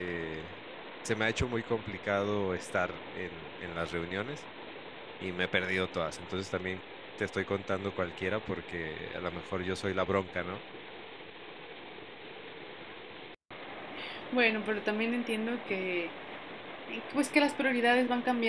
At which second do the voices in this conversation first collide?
none

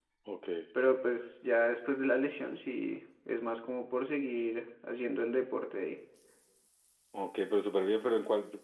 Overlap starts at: none

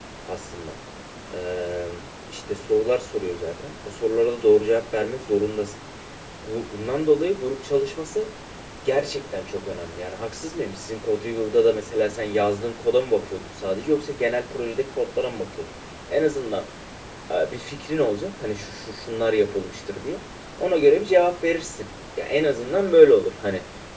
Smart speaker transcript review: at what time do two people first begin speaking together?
none

